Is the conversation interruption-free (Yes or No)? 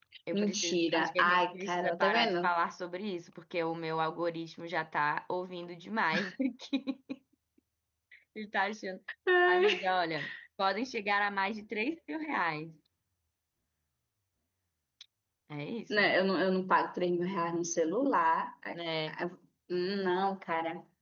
No